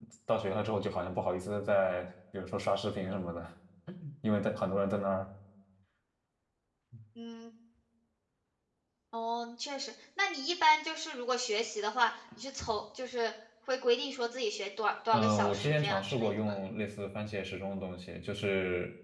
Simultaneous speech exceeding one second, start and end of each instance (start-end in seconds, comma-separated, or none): 15.1-16.5